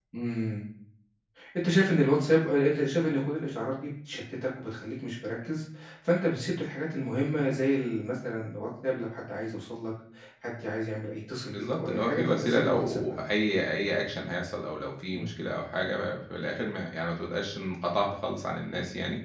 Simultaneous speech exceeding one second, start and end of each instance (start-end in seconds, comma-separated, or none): 11.5-13.0